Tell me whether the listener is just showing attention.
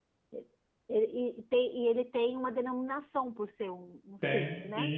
No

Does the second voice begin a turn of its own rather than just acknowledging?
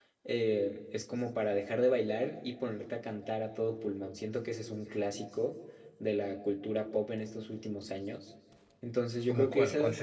Yes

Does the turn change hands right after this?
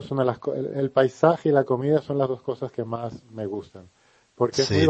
No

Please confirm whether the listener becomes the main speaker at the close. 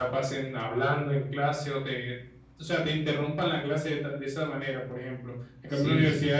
No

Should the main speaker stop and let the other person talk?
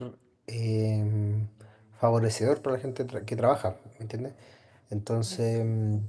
No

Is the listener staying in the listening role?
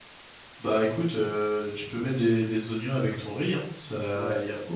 No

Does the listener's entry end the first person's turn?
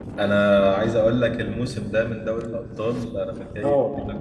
No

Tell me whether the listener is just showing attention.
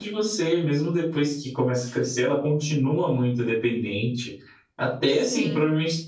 Yes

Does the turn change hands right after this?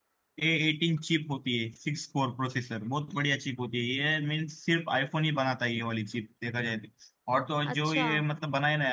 No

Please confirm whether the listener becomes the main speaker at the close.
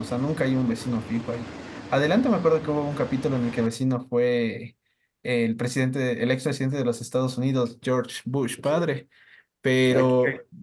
No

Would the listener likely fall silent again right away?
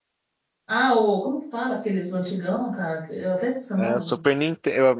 No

